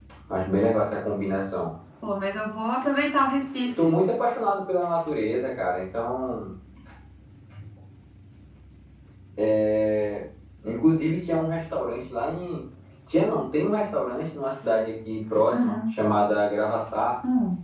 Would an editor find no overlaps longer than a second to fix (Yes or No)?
Yes